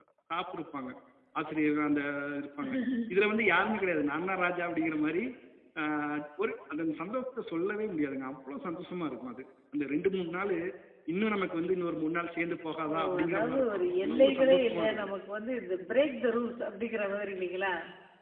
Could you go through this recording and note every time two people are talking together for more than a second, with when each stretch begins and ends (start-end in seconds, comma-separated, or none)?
12.9-15.1